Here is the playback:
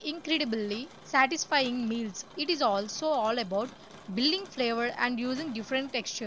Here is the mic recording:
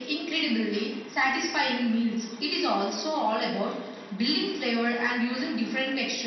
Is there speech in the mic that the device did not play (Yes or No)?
No